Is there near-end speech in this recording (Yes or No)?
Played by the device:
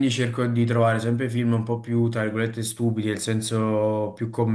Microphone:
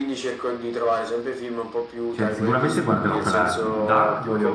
Yes